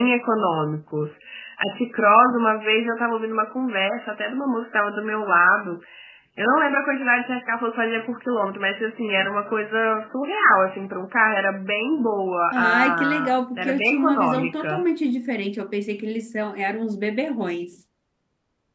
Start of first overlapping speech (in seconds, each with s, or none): 12.5 s